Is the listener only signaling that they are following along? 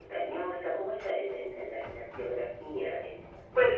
No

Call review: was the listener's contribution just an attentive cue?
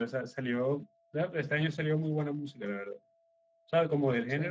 Yes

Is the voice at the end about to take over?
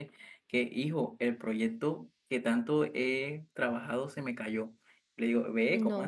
No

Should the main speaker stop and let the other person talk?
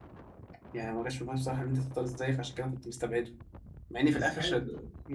Yes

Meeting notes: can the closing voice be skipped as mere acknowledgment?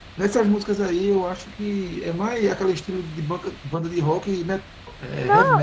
No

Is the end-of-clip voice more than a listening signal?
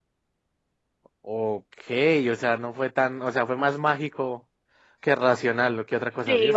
No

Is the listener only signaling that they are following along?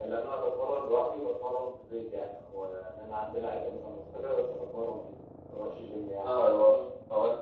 No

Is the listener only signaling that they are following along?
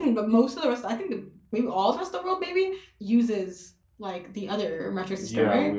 No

